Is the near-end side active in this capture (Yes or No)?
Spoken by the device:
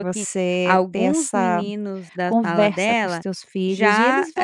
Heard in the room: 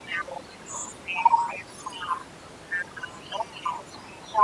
No